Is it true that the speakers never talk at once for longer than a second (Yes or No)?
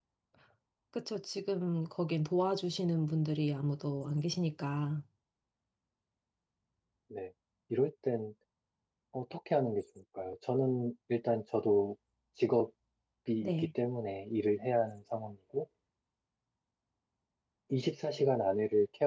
Yes